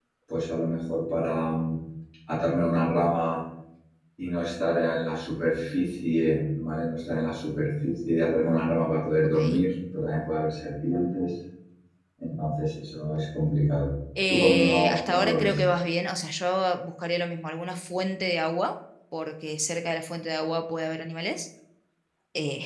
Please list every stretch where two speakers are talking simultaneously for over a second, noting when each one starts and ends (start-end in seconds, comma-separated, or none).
14.3-15.6